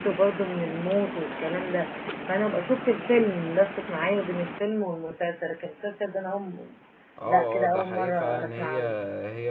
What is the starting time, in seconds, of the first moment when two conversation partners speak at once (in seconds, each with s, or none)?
7.3 s